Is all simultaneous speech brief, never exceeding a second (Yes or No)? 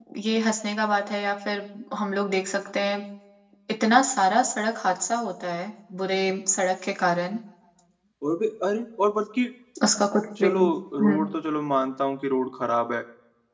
Yes